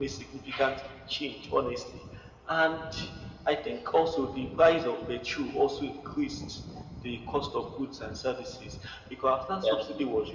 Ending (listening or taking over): listening